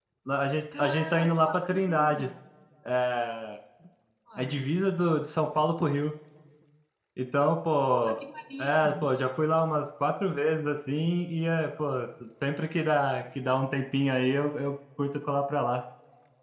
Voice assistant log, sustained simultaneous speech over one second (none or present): present